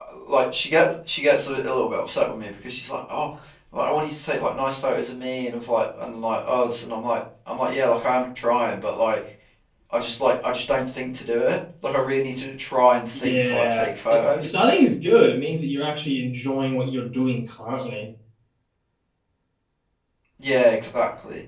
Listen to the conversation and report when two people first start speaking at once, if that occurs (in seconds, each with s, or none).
13.1 s